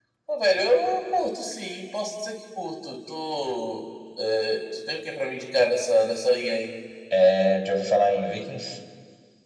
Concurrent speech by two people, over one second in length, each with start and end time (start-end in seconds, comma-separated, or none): none